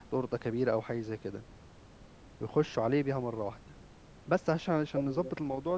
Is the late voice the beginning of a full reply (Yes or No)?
No